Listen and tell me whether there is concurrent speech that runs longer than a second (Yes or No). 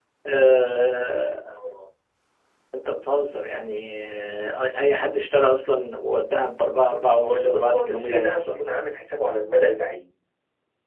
Yes